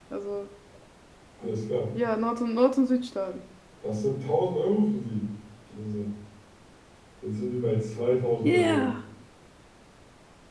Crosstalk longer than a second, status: none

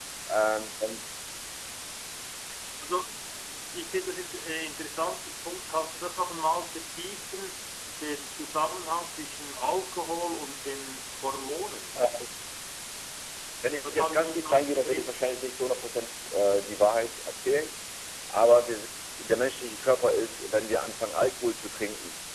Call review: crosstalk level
present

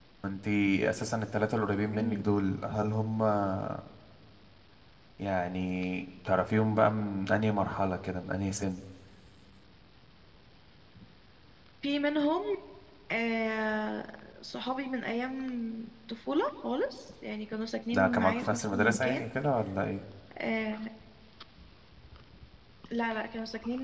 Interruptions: present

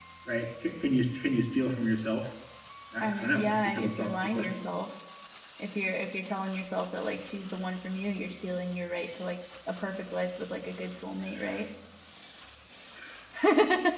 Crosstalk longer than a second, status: present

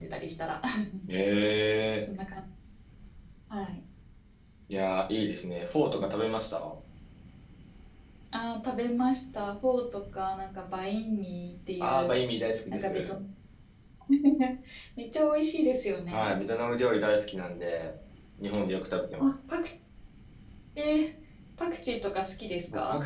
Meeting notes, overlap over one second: none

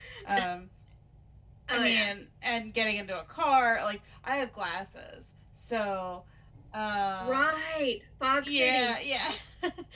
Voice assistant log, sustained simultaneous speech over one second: none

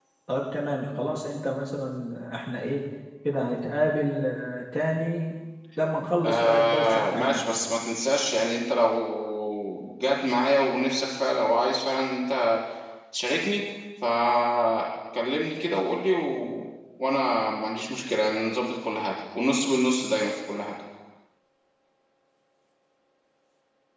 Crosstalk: present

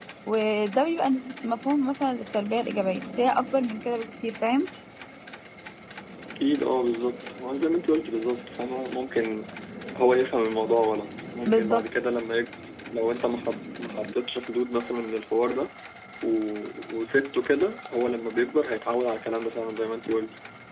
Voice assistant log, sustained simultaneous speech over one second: none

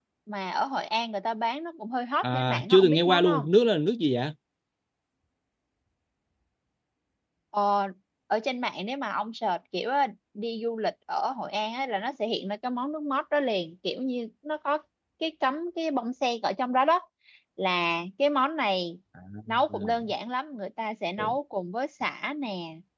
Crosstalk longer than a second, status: present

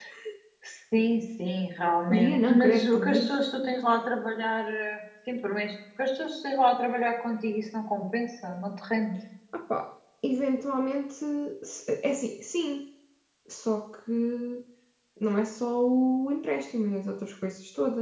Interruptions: present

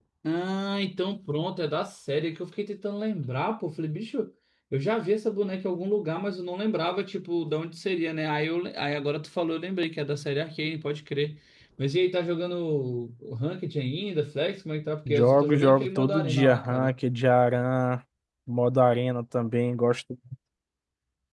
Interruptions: present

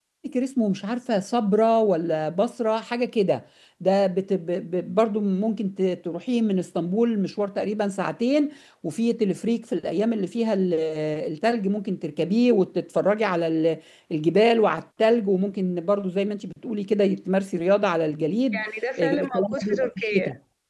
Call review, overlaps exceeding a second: present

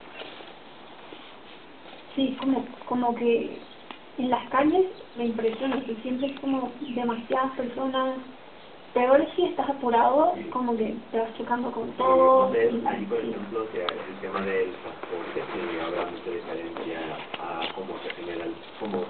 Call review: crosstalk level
present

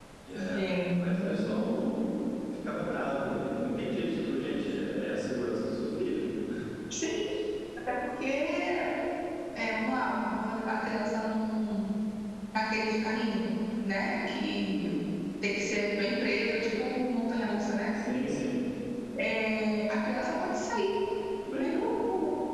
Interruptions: present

